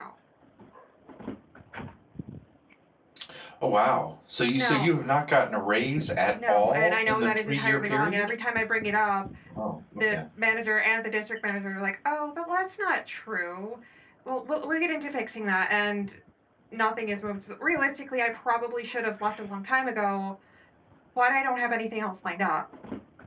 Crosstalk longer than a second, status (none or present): present